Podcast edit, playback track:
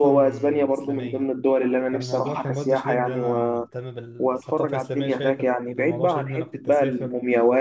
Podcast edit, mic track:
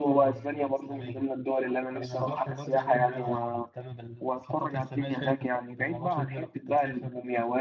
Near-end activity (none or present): present